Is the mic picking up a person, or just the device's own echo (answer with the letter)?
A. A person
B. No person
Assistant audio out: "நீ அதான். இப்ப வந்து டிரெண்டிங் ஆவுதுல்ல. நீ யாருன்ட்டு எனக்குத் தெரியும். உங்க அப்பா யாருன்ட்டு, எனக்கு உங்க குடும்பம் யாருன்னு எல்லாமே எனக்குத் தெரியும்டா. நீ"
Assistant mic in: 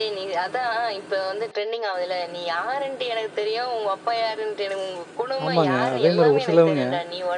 A